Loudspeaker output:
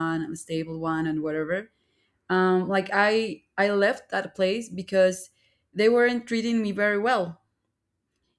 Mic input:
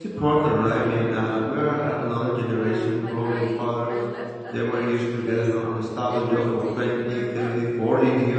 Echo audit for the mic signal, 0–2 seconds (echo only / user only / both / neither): both